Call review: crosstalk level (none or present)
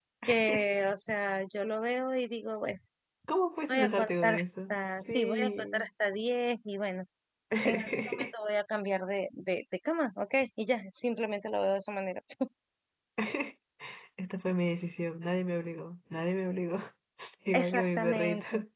present